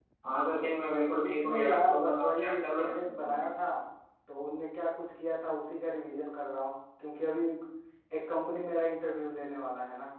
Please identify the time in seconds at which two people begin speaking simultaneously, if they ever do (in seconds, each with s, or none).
1.2 s